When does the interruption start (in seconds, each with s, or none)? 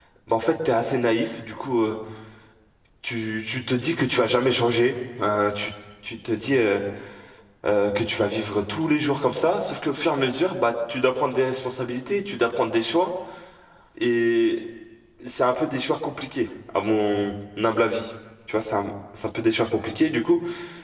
none